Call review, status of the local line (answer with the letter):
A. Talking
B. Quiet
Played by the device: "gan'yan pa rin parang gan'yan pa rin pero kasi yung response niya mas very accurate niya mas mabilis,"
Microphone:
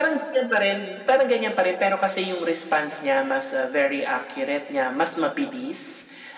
B